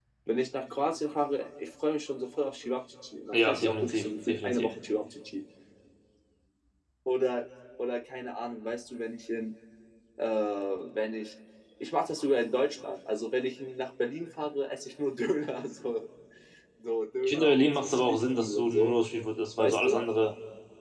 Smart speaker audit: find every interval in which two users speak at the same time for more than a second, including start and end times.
3.3-4.7, 17.2-18.9

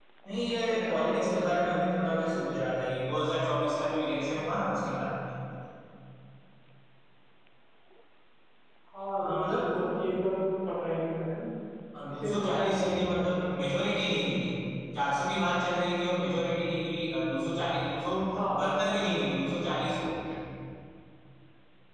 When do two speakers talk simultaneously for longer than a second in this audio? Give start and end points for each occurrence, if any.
0.8-2.4, 12.2-13.7

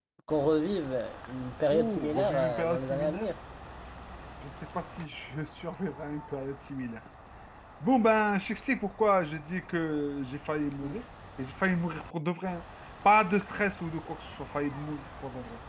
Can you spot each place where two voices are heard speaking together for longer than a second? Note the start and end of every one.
1.7-3.3

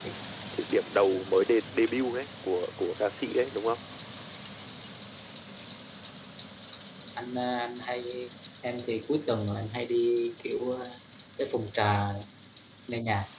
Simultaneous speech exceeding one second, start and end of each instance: none

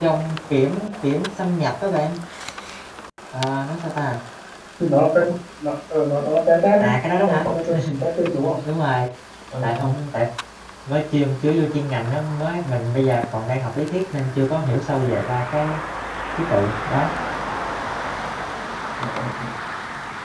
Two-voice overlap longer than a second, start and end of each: none

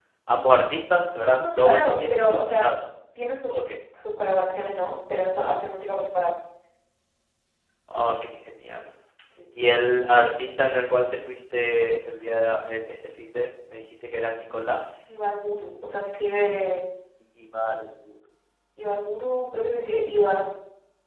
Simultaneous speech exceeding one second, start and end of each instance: 1.2-2.7

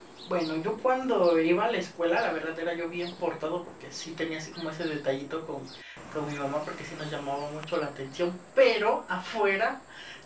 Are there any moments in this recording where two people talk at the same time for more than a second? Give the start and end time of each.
none

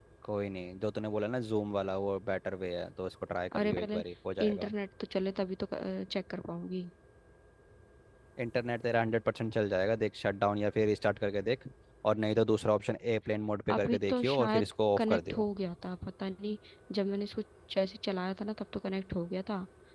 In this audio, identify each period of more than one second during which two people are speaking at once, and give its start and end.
13.7-15.4

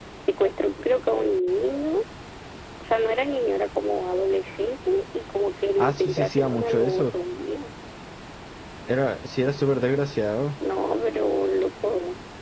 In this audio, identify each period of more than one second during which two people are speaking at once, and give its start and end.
5.8-7.1

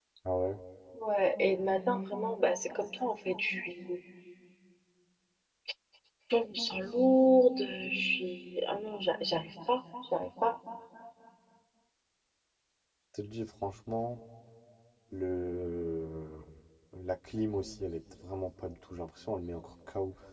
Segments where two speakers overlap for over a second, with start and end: none

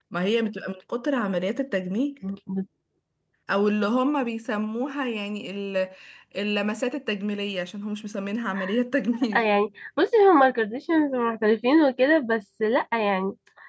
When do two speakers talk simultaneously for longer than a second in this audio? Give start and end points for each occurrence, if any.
none

